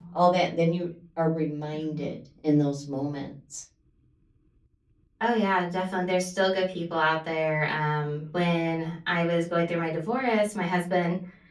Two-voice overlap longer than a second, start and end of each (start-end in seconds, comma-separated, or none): none